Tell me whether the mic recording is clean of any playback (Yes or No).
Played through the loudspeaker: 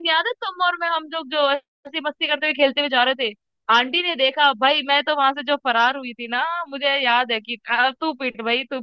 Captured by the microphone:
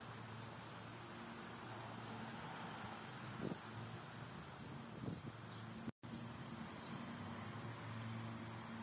Yes